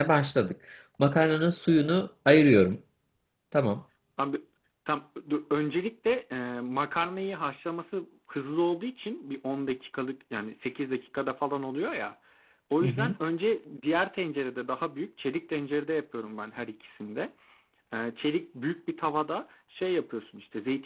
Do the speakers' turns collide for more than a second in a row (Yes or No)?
No